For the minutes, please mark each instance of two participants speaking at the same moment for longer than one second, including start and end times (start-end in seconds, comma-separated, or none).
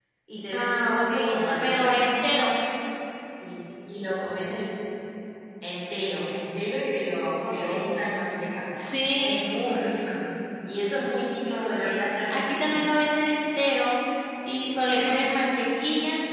0.5-1.9, 11.5-12.8